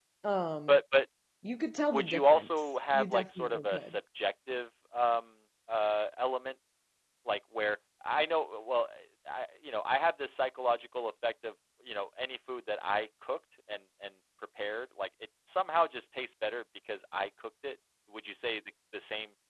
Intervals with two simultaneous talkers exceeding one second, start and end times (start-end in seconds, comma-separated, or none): 1.9-4.0